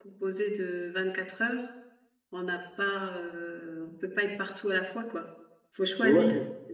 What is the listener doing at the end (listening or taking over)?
taking over